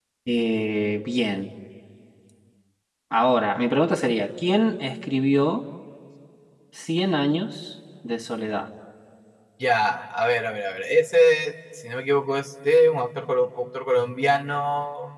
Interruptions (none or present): none